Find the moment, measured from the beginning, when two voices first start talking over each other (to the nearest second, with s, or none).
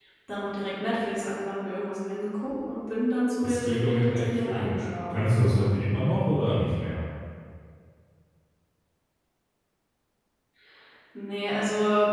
3 s